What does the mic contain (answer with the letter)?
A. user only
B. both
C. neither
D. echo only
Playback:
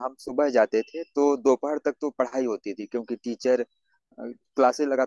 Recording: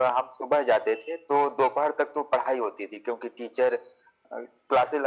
D